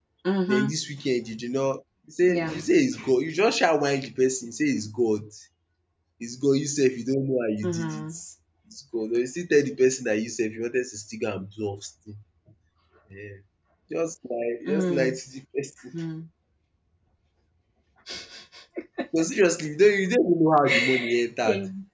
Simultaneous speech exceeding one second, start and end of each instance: none

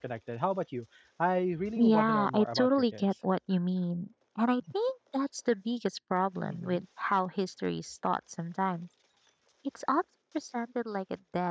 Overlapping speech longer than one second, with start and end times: 1.8-3.1

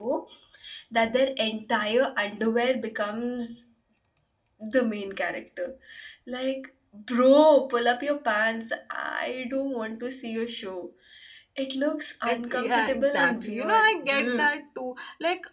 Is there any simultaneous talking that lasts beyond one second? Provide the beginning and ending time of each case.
12.3-14.5

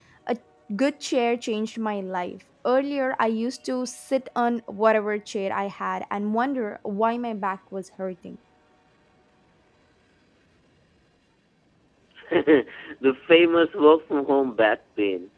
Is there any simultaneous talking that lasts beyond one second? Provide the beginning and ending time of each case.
none

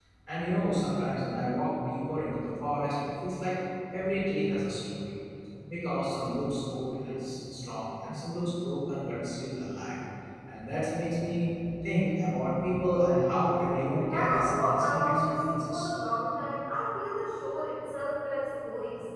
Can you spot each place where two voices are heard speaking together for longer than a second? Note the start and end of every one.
14.1-15.9

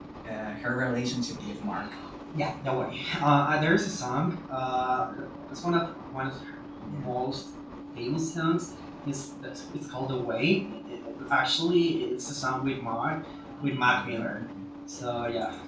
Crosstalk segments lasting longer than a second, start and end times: none

